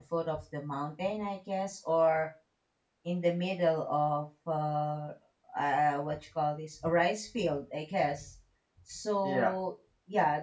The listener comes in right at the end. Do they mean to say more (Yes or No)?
No